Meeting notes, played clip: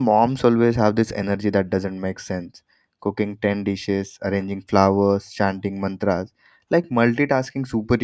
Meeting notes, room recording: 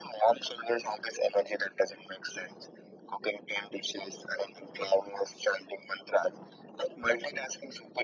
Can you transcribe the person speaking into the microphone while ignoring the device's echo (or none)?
none